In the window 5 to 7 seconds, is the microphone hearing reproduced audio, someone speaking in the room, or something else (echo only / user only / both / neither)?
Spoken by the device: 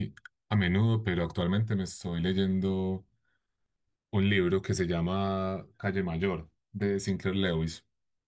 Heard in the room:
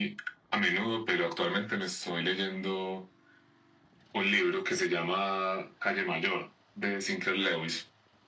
echo only